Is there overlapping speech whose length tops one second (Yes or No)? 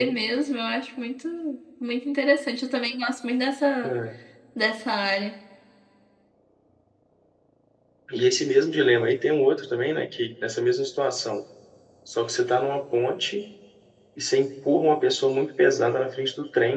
No